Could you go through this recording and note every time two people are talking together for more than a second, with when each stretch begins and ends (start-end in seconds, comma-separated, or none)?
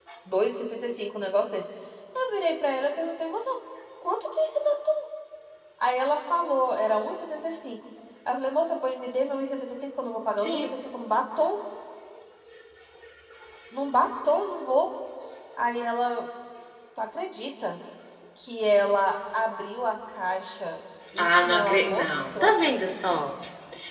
21.2-22.5